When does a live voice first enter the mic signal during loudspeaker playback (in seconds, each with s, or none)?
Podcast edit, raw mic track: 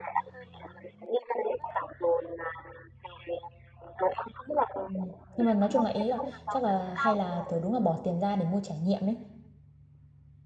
4.8 s